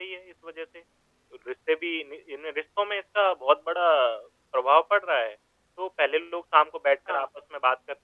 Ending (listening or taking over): listening